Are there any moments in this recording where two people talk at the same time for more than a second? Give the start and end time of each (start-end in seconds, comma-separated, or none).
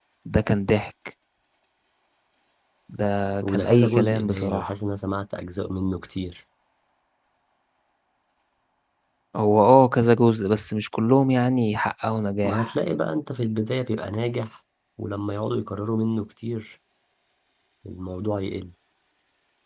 3.4-4.7